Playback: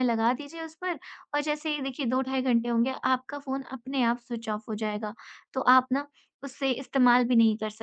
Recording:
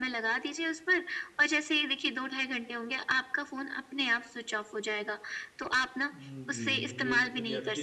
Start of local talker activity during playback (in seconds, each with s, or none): 6.1 s